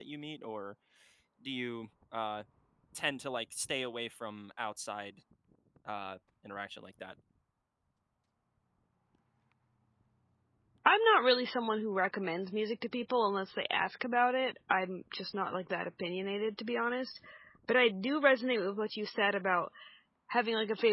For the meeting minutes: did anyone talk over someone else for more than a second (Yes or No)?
No